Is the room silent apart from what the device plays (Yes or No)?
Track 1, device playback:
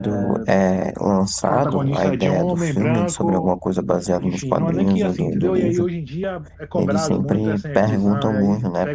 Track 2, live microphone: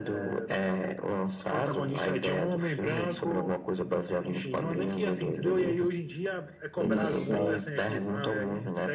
No